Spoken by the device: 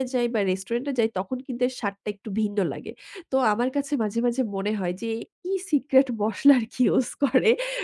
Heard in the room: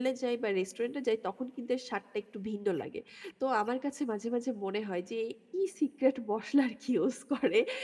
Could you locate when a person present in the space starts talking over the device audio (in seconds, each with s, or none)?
none